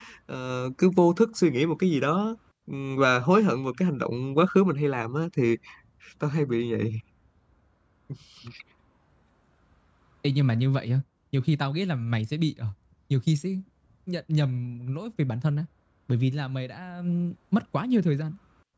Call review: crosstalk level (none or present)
none